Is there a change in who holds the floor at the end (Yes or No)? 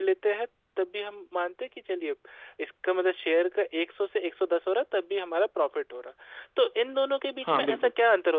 No